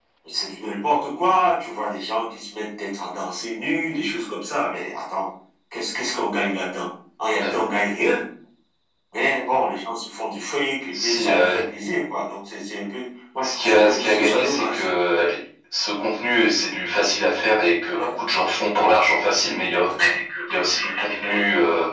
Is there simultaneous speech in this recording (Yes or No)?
Yes